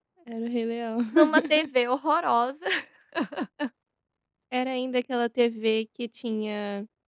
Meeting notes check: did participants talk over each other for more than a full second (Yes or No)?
No